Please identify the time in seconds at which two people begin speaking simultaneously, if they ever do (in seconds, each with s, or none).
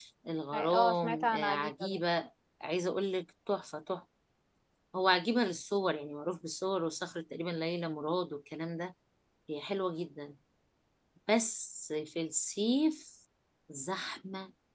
0.5 s